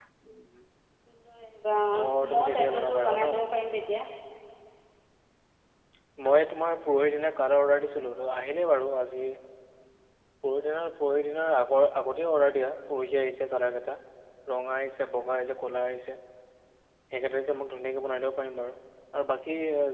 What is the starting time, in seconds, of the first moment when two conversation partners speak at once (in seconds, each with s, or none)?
2.0 s